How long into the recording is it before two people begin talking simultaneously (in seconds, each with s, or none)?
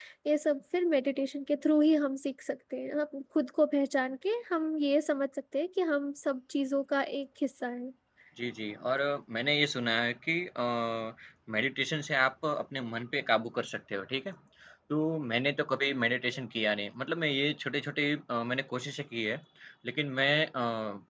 none